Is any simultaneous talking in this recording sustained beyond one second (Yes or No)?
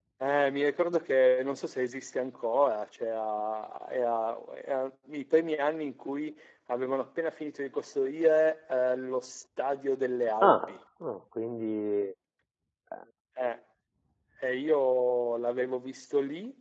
No